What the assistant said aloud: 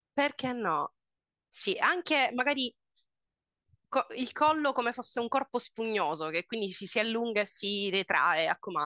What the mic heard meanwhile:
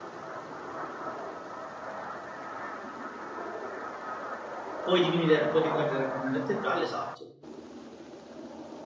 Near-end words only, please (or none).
puoi diminuire, puoi ritrarre la colonna vertebrale, esatto.